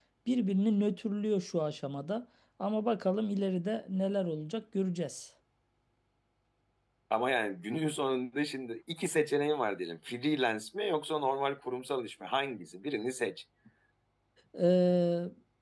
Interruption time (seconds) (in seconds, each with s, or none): none